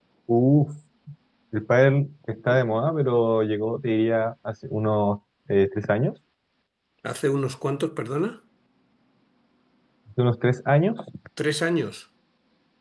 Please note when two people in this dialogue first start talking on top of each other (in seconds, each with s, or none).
none